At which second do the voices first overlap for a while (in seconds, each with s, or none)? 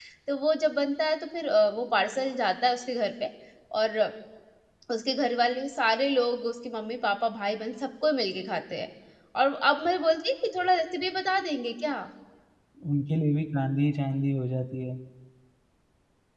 none